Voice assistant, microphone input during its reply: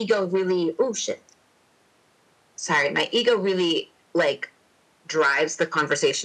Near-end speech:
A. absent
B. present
A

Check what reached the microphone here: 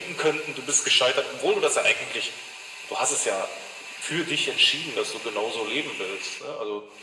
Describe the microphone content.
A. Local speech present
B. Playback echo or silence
B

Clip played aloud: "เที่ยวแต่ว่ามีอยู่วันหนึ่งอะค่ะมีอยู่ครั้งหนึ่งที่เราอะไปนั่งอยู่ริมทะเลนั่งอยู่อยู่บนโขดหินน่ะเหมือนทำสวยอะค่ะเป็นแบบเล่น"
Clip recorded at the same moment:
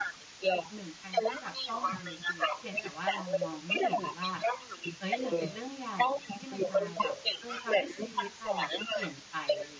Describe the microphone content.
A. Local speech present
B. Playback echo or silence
A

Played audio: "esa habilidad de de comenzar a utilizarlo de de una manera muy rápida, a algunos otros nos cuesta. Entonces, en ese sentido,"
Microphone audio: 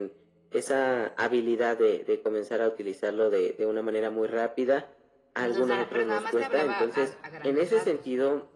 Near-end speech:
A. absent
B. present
B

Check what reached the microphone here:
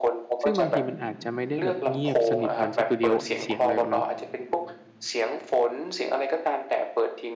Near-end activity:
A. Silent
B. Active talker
B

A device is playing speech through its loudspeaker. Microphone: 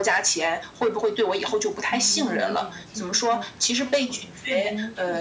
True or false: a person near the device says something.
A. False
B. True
B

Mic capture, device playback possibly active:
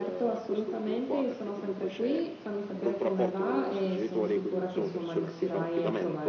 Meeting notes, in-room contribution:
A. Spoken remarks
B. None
A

